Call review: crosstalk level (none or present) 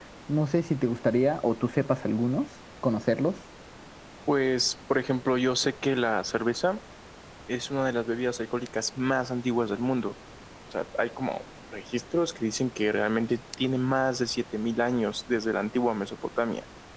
none